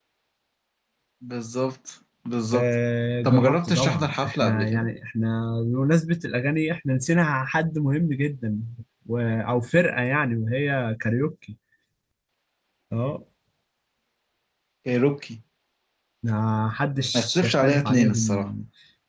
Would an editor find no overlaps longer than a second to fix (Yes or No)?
No